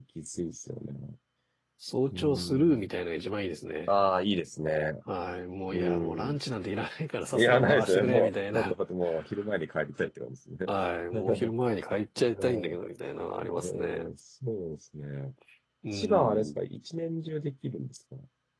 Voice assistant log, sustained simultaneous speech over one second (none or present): present